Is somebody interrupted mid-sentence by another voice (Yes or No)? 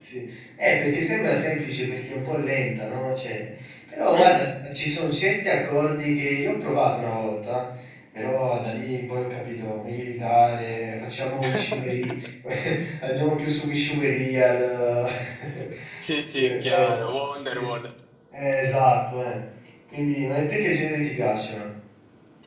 Yes